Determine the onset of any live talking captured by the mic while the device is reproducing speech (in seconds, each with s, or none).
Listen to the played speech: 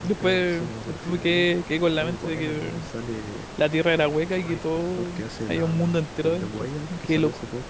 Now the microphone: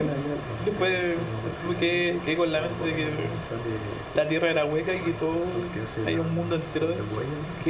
none